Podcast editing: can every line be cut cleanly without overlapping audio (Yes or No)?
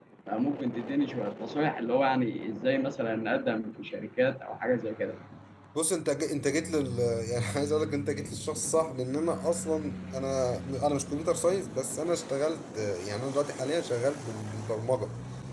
Yes